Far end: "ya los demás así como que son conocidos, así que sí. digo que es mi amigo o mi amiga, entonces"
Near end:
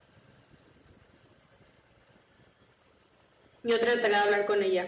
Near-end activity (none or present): present